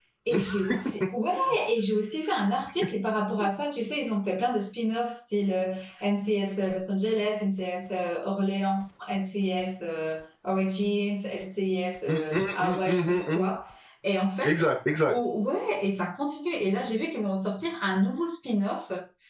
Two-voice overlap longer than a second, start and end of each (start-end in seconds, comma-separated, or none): 12.1-13.6